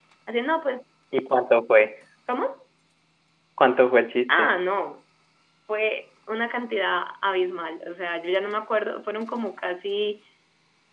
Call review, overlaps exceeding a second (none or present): none